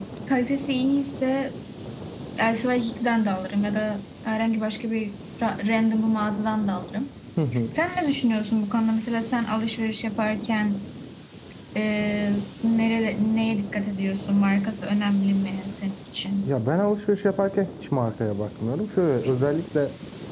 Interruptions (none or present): none